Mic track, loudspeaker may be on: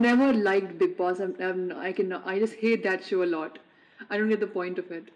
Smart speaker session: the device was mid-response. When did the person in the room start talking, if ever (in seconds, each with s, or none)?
none